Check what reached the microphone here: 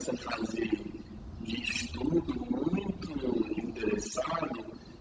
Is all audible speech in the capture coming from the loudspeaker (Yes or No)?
Yes